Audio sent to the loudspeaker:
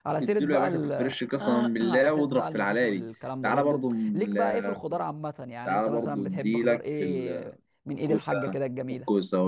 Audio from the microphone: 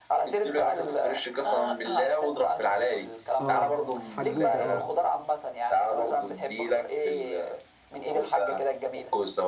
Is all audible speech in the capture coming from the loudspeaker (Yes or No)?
No